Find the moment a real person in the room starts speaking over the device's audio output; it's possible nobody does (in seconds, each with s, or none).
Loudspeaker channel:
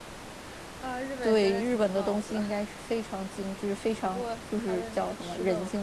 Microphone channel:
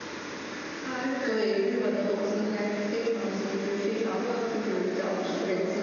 none